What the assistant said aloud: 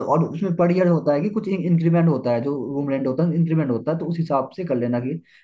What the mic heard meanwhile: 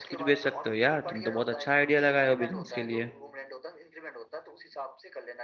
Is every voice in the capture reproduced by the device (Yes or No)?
No